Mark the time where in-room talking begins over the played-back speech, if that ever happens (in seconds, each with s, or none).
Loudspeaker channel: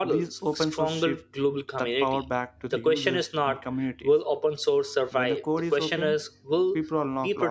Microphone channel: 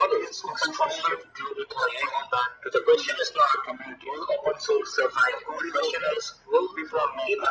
none